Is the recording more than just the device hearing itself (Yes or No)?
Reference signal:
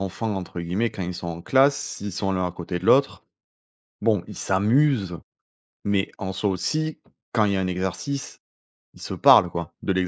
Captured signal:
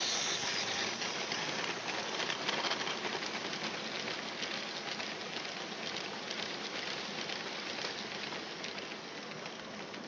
No